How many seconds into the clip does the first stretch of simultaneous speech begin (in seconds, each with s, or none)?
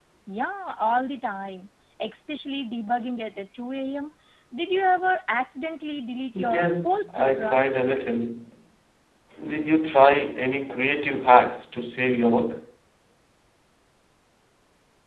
6.3 s